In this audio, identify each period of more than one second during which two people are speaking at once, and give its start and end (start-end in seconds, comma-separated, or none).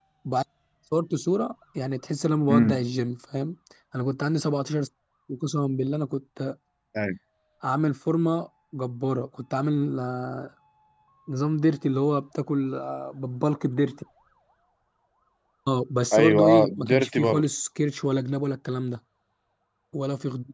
16.1-17.4